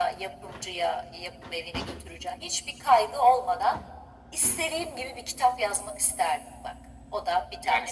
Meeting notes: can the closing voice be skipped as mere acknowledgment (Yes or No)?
No